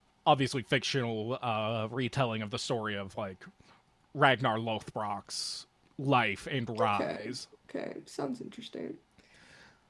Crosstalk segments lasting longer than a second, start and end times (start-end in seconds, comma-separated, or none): none